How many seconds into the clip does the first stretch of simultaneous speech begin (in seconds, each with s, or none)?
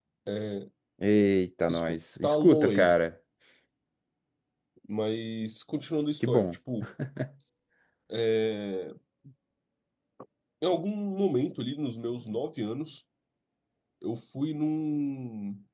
1.7 s